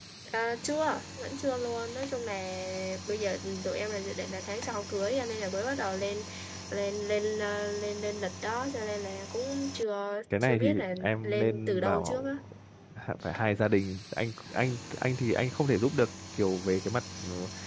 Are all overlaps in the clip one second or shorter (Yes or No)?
No